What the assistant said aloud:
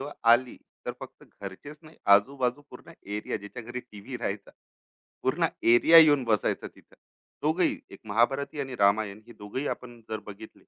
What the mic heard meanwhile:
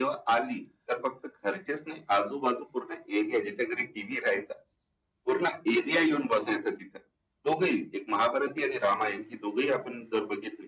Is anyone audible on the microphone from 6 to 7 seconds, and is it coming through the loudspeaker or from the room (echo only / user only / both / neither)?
echo only